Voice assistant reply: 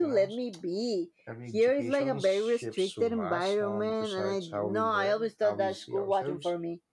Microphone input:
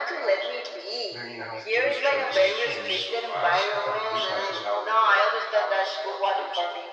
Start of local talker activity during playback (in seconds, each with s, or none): 1.1 s